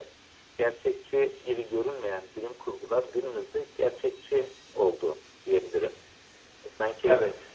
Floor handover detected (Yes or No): No